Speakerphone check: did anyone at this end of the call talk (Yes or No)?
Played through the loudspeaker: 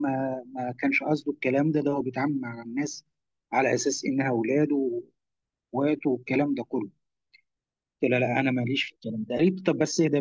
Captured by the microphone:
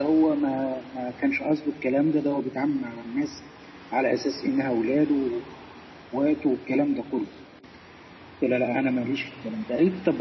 No